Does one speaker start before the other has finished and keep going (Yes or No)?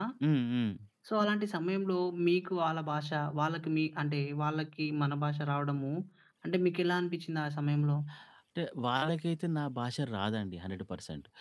No